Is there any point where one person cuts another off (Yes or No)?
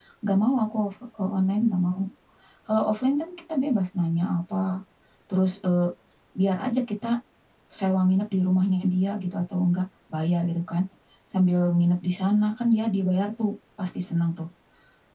No